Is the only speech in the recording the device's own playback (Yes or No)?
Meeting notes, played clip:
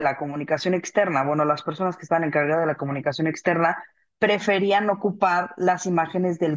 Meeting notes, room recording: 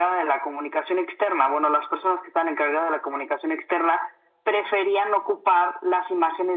Yes